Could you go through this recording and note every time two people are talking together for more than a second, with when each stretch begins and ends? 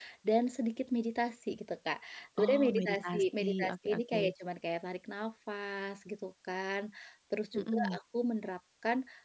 2.4-4.3

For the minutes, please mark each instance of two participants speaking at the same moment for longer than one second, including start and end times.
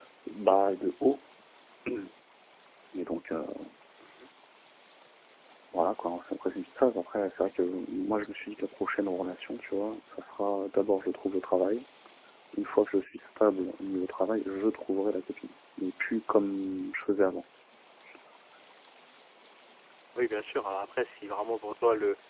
none

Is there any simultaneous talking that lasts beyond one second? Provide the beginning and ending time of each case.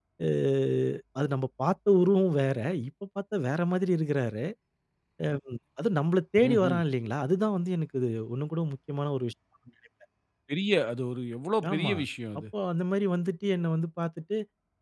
none

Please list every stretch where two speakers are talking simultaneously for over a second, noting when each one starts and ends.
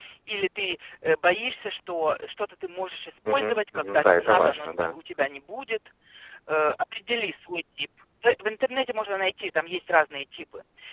3.3-5.0

